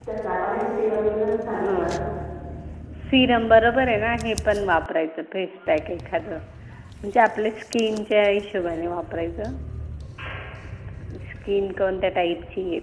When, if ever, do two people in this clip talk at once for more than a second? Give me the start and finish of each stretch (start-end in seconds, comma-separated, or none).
none